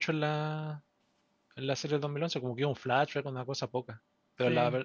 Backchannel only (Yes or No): Yes